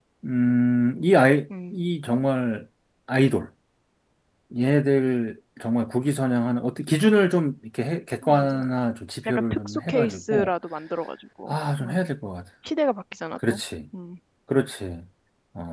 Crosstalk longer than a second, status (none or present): present